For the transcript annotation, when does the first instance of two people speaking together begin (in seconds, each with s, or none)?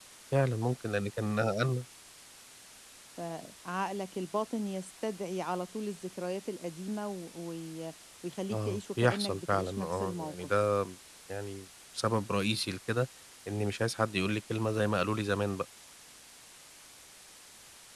8.5 s